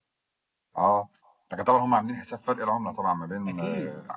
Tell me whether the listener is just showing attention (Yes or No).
No